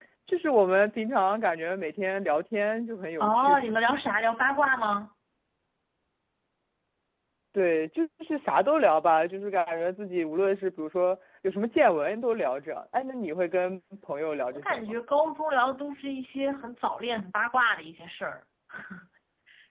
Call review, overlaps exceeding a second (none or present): none